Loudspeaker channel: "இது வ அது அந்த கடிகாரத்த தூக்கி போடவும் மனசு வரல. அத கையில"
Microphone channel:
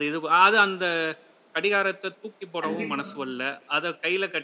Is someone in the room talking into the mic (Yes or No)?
Yes